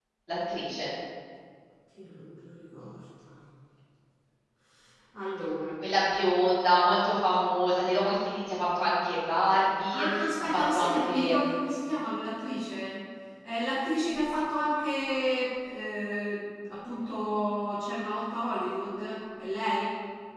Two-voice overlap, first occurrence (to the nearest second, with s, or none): 10 s